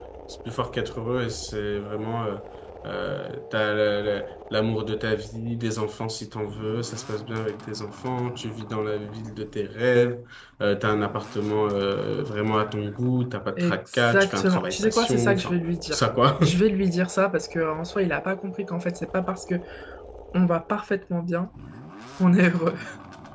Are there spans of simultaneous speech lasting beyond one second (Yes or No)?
Yes